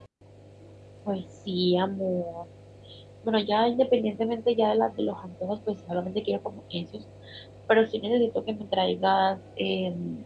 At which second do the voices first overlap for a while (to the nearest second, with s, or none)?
none